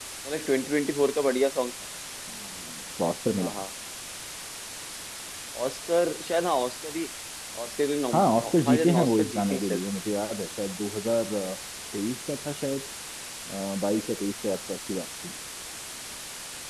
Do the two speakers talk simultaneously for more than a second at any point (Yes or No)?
Yes